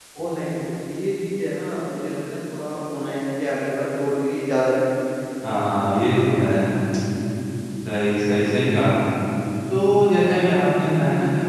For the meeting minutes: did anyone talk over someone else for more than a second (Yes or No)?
No